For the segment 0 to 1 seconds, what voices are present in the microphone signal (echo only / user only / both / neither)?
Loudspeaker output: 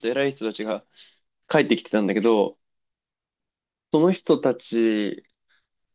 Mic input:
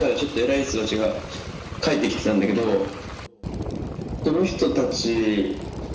echo only